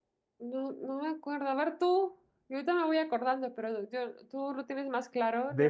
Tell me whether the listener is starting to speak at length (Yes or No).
Yes